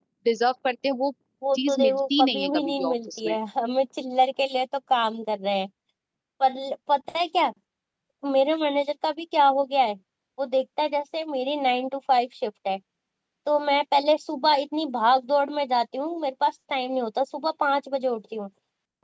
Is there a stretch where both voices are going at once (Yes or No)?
Yes